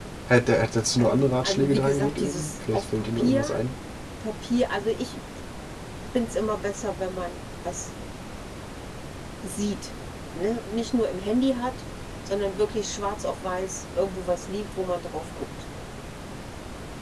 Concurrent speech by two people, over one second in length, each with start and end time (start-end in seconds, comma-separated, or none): 1.0-3.6